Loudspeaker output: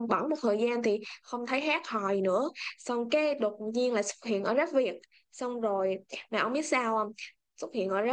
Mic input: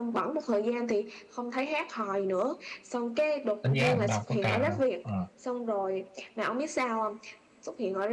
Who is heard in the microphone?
both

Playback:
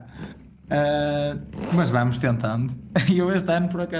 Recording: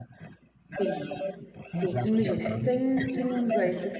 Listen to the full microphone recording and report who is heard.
both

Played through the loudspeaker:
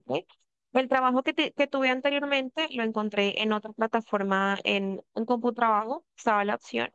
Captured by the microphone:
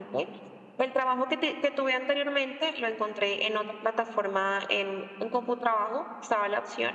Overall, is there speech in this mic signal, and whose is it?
echo only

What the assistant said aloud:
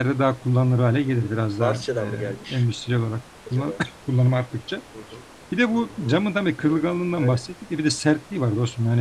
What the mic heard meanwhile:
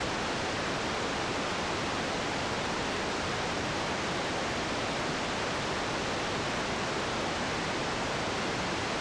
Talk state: neither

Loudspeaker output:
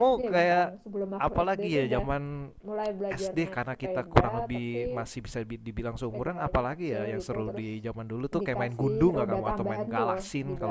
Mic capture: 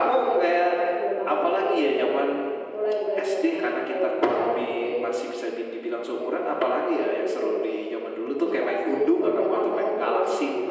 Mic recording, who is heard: echo only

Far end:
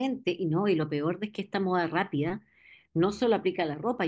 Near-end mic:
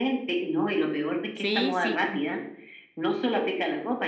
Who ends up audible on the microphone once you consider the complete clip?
both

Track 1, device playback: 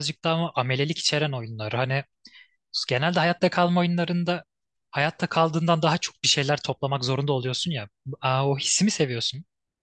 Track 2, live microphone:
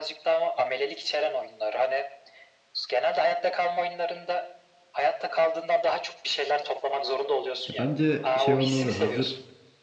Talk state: both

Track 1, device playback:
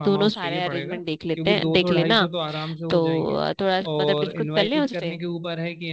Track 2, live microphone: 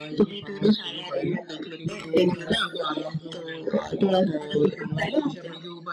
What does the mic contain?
echo only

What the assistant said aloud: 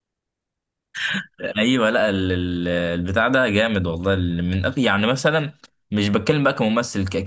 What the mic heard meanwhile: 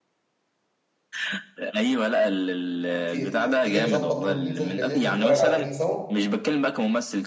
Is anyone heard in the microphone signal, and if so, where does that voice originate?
both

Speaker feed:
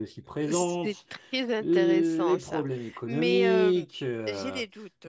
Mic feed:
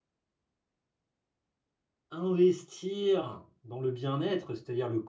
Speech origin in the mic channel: user only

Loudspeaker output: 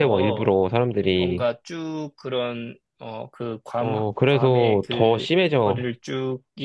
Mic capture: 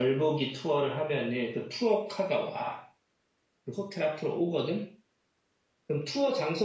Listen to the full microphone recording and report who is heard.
user only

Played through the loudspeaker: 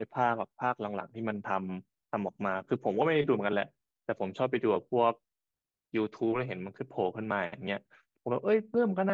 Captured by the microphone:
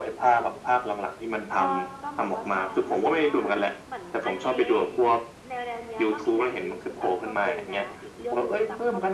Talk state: both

